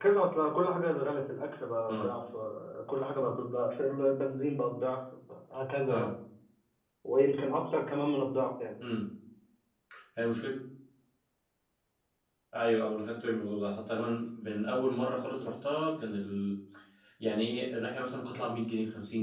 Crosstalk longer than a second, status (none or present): none